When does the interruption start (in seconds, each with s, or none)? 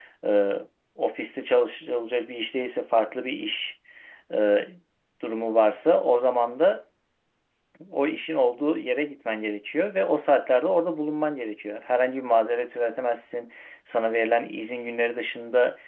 none